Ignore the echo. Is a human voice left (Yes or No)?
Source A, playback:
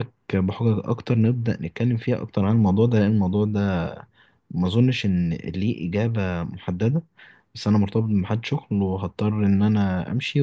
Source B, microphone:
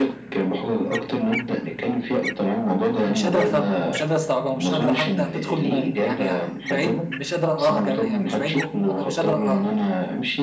Yes